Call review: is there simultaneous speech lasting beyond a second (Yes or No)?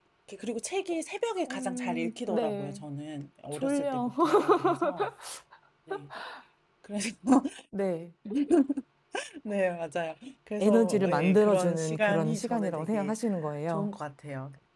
Yes